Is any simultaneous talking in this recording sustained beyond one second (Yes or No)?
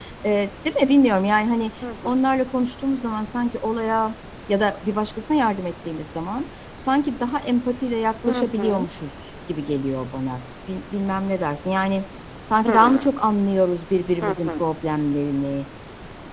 No